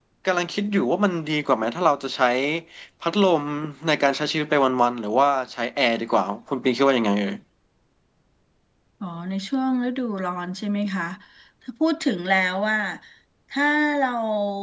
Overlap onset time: none

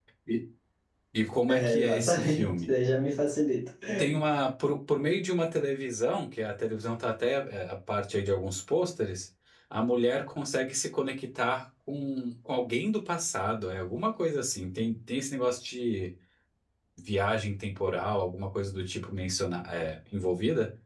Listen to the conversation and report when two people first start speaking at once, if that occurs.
1.5 s

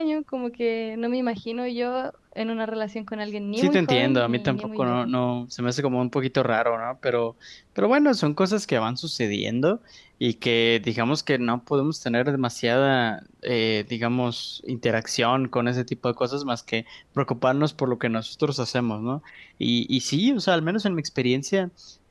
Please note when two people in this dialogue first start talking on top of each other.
3.6 s

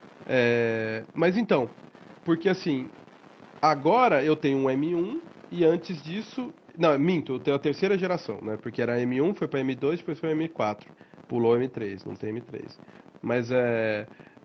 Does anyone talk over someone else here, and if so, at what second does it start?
none

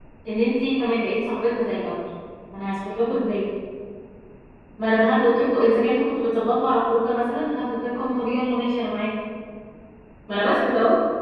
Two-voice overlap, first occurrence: none

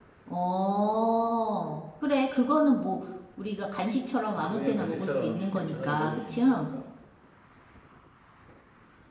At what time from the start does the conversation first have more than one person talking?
4.4 s

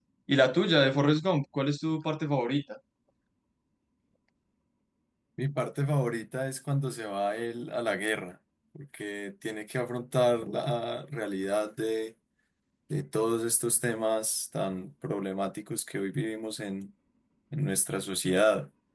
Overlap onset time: none

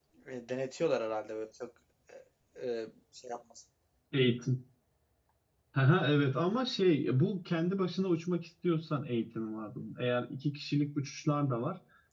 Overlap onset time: none

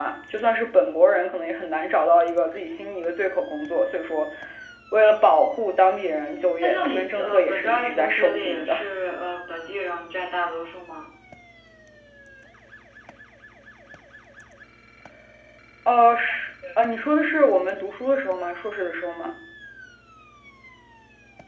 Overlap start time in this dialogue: 6.6 s

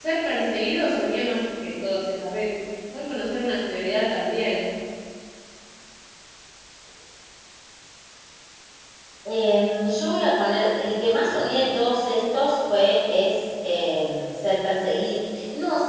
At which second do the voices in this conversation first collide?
none

